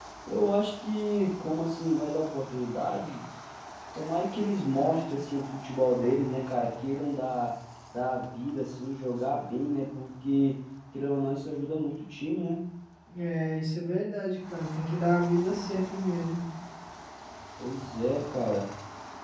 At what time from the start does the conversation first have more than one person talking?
none

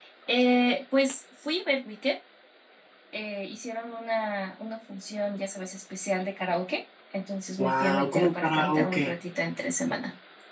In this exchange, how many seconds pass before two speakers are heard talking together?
7.6 s

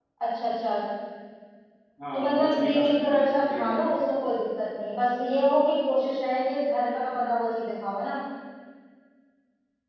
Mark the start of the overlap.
2.1 s

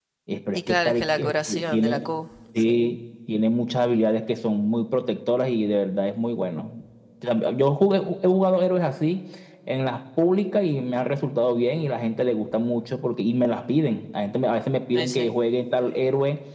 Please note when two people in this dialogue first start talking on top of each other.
0.7 s

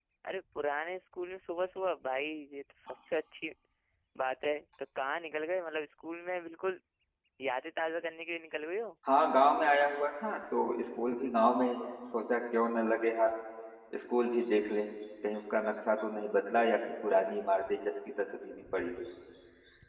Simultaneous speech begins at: none

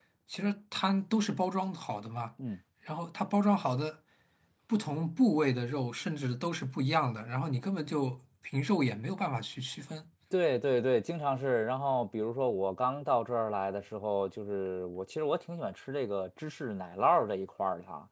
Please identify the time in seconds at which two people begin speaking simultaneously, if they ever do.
none

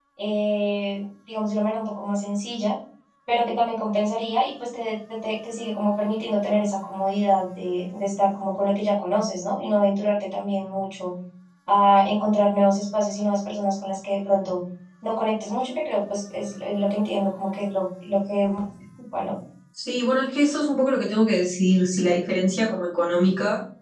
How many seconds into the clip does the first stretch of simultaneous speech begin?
none

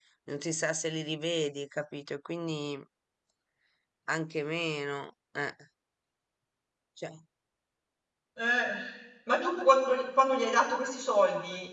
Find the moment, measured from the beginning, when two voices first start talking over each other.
none

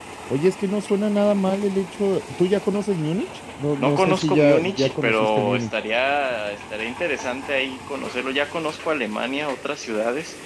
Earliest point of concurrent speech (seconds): 3.8 s

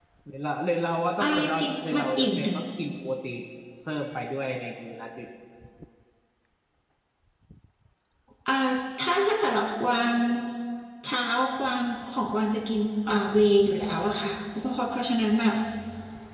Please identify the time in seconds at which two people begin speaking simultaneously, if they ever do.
1.2 s

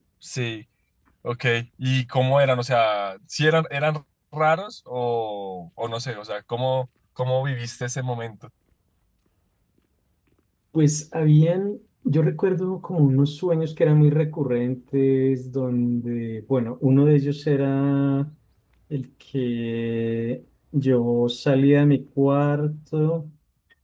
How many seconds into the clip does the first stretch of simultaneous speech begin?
none

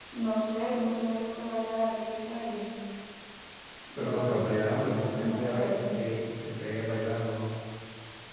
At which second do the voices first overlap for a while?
4.0 s

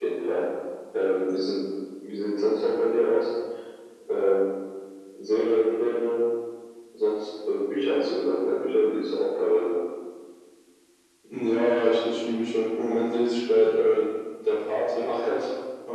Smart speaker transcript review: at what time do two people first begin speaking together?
none

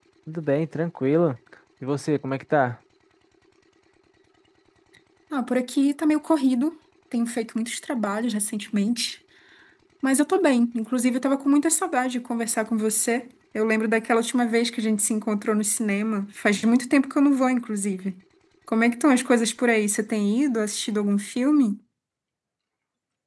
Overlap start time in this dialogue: none

